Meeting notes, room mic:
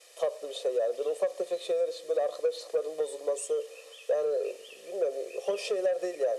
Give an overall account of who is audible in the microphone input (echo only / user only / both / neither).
echo only